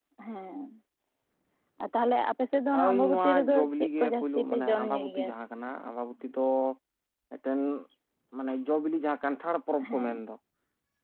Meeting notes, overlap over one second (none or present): present